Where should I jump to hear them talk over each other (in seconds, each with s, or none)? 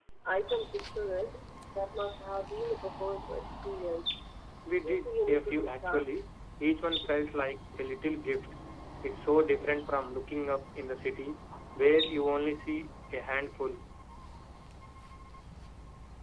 4.7 s